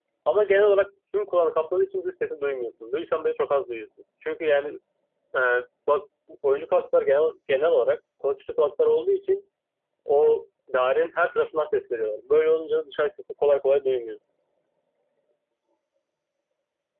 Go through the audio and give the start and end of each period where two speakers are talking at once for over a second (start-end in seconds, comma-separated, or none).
none